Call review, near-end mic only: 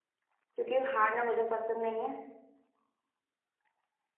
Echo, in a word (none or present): none